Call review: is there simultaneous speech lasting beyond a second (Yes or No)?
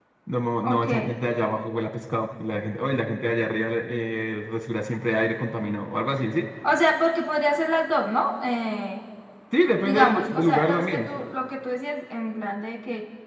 Yes